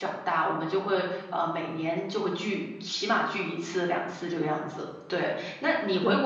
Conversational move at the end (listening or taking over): listening